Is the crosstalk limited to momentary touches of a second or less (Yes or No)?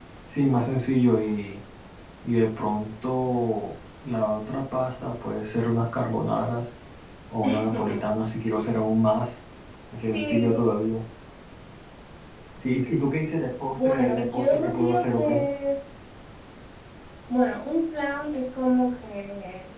No